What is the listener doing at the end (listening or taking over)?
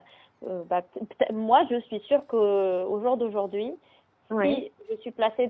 listening